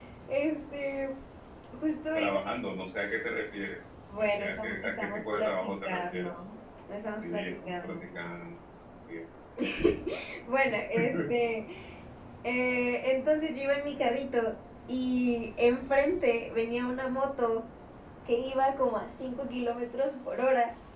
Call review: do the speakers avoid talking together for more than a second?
No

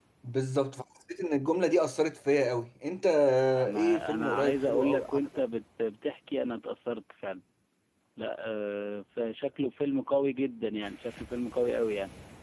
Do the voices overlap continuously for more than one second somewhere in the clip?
Yes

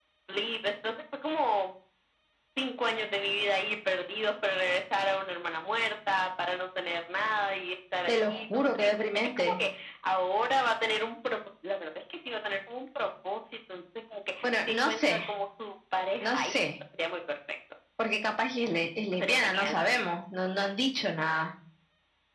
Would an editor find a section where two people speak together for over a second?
Yes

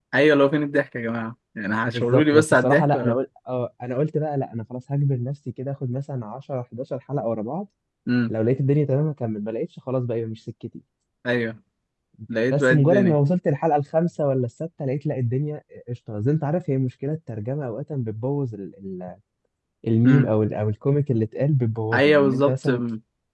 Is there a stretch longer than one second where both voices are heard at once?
Yes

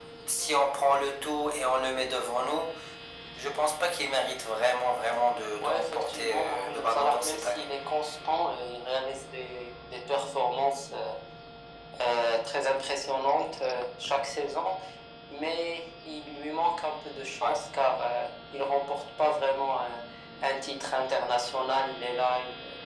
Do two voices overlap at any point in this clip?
Yes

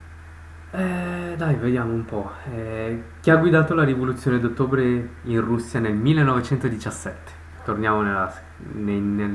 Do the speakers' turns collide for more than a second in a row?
No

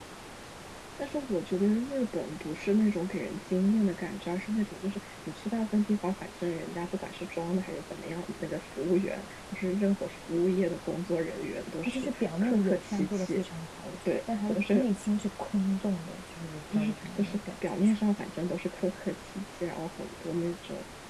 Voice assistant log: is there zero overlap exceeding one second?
No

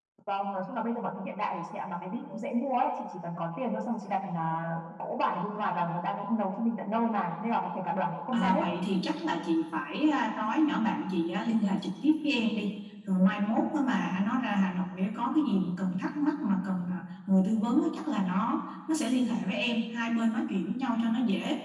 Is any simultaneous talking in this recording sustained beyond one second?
No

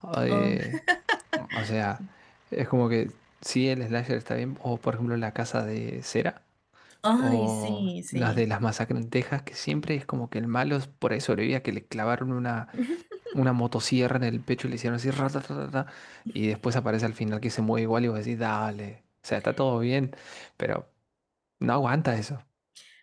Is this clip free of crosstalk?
No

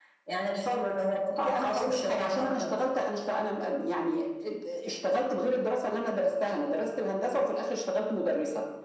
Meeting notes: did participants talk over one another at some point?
Yes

